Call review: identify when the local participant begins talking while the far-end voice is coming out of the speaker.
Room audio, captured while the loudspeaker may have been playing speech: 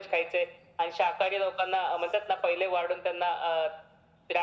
none

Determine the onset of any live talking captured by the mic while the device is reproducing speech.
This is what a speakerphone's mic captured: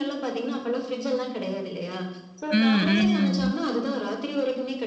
2.5 s

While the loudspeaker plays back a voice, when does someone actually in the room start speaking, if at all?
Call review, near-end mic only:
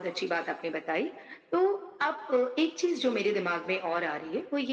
none

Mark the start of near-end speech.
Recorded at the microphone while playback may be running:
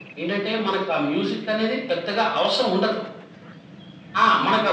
none

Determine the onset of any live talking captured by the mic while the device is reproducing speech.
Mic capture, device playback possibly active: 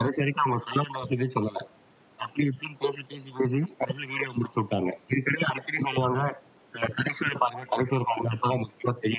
none

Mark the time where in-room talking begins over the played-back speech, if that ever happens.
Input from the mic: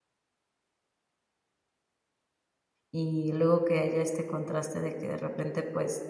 2.9 s

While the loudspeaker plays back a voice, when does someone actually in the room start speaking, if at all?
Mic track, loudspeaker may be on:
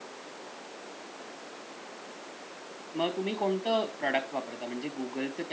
3.0 s

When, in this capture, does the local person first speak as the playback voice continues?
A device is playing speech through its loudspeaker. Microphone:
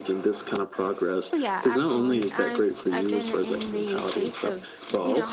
1.3 s

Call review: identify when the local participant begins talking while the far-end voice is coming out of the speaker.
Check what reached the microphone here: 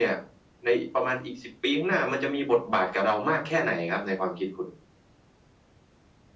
none

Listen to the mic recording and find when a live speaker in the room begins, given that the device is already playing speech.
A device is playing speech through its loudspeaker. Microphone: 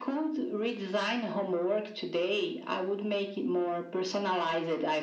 none

